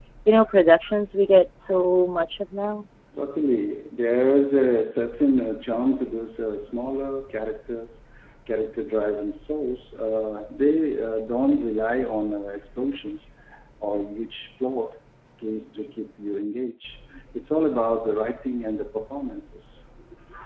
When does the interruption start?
none

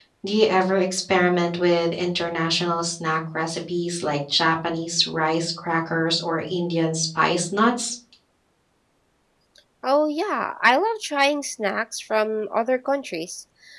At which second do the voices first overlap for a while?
none

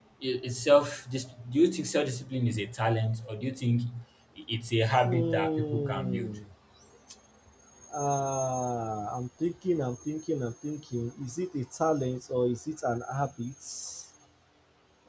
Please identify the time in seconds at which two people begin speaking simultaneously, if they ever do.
5.0 s

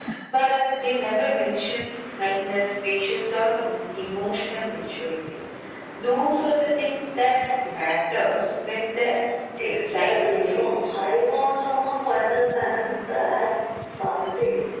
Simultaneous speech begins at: 9.6 s

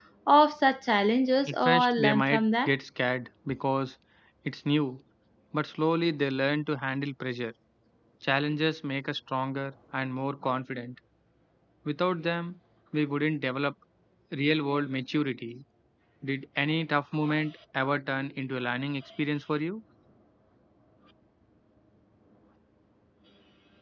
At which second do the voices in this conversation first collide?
1.5 s

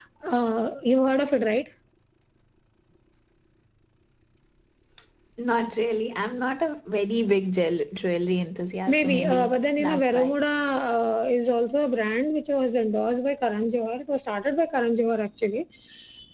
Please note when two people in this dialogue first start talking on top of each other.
8.9 s

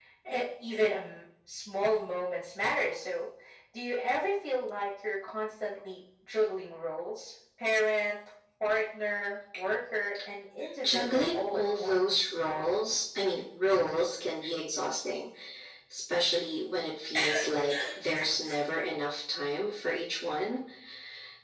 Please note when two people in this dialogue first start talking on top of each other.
10.8 s

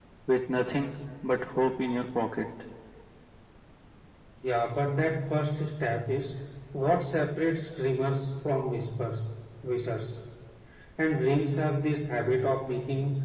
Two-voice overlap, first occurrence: none

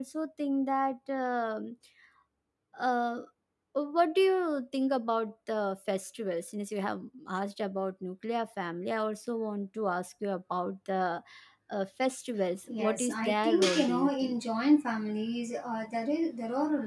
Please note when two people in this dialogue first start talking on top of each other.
12.7 s

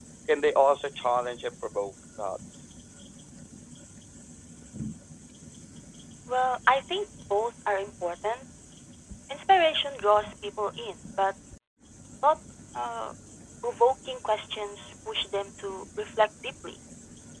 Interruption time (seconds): none

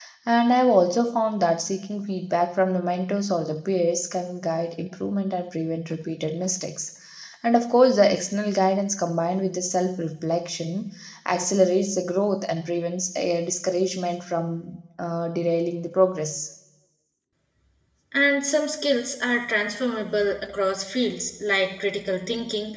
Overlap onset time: none

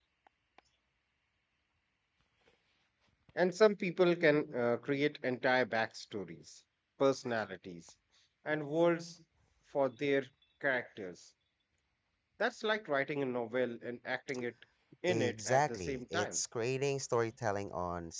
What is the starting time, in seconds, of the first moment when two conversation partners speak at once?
15.1 s

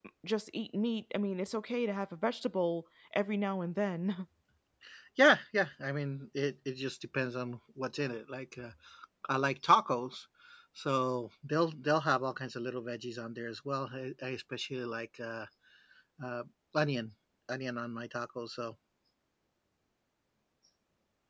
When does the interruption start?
none

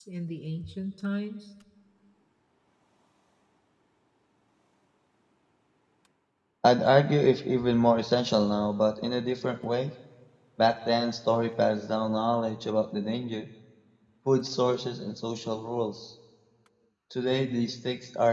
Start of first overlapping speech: none

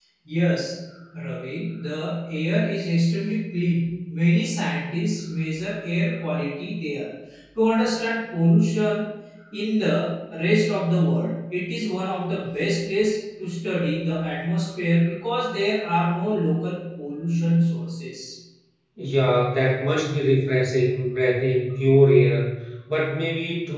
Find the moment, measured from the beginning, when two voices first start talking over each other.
none

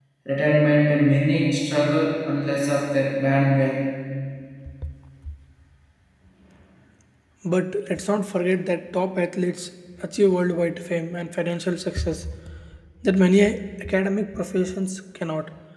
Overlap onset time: none

